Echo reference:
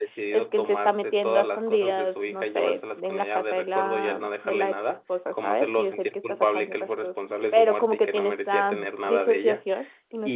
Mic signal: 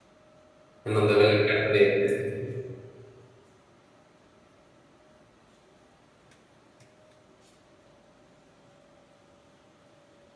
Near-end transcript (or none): en donde ve la cara de, de este señor.